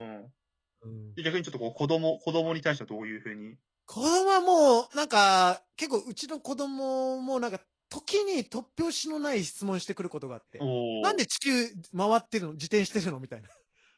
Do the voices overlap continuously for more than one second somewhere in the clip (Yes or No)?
No